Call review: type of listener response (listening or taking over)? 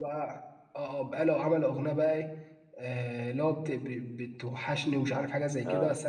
listening